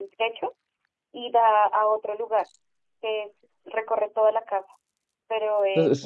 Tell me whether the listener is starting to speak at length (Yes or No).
Yes